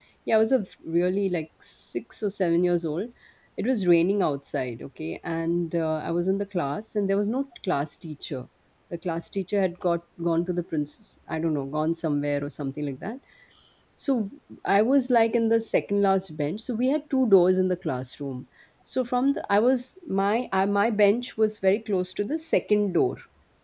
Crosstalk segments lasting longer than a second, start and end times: none

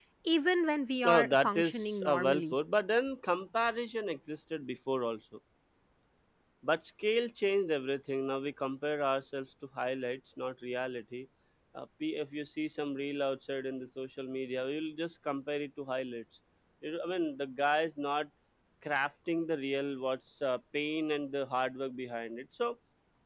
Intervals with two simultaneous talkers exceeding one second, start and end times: 1.1-2.5

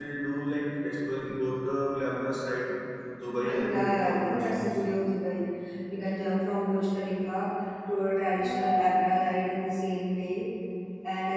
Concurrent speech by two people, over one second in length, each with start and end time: 3.5-4.8

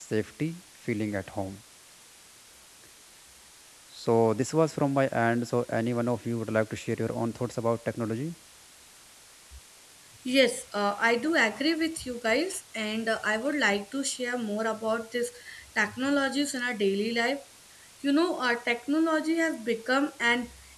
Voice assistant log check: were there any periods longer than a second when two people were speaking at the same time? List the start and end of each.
none

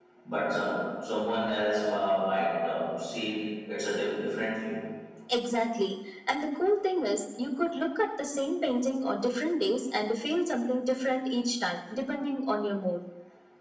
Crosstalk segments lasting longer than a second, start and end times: none

